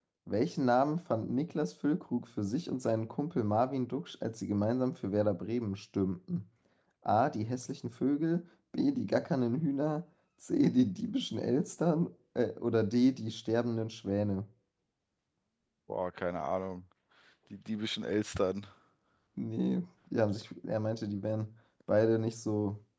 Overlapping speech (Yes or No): No